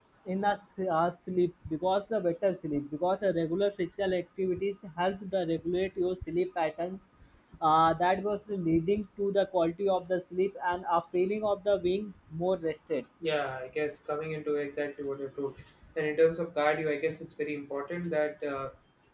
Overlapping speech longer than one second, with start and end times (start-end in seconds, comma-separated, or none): none